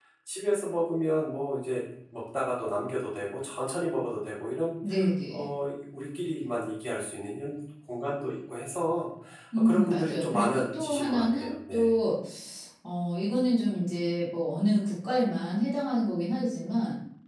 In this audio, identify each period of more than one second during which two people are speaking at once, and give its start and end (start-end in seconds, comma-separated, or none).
9.6-11.9